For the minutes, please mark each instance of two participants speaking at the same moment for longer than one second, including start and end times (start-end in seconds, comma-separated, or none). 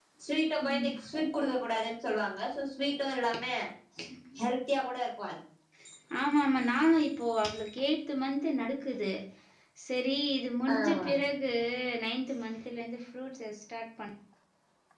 none